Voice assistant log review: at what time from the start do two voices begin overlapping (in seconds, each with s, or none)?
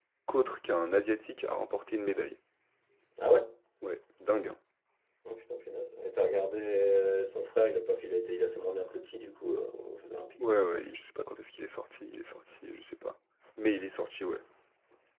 none